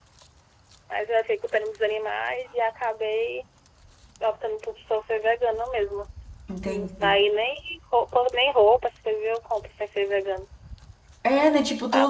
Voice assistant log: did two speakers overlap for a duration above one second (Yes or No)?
No